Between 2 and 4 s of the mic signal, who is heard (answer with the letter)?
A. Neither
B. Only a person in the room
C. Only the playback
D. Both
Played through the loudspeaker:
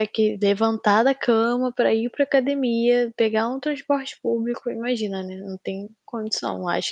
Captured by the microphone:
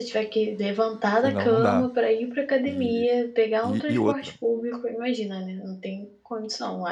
D